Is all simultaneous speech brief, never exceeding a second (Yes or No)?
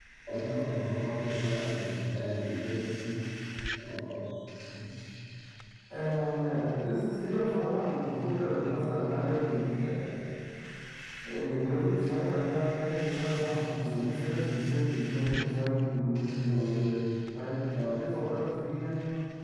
Yes